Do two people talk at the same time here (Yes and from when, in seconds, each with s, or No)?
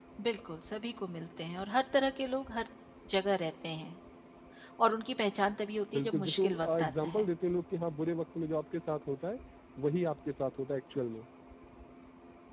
Yes, from 5.9 s